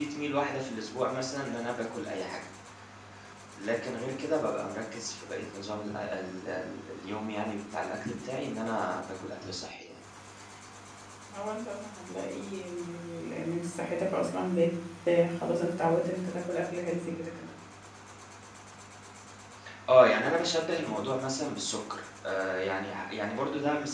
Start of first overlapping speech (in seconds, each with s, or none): none